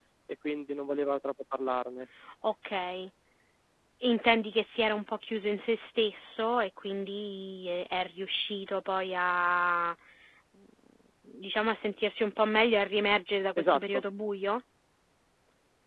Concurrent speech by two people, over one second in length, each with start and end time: none

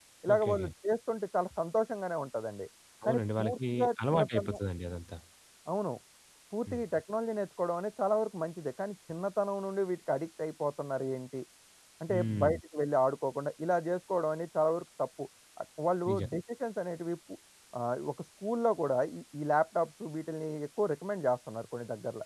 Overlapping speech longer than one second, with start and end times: 3.0-4.6

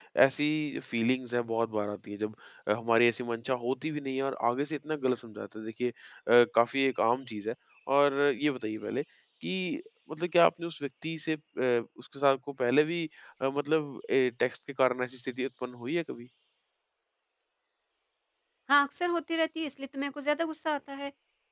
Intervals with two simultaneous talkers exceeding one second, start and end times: none

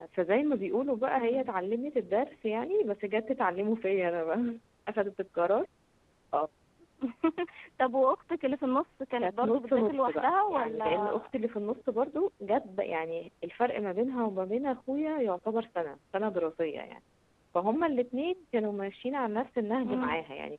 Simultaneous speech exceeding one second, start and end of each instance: 9.2-11.3

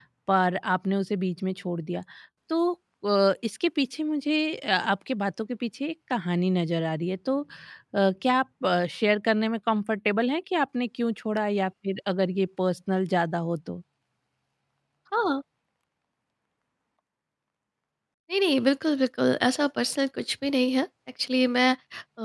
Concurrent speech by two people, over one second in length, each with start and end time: none

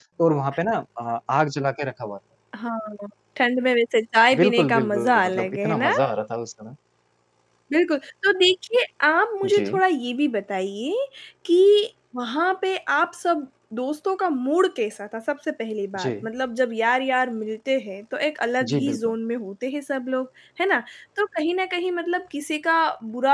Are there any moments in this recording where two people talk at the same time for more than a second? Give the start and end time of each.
4.4-5.9

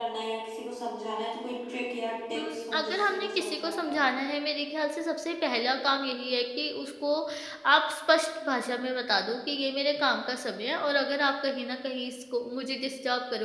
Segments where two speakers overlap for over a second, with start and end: 2.4-4.0

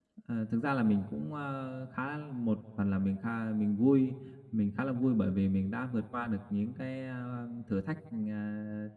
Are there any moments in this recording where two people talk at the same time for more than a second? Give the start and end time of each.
none

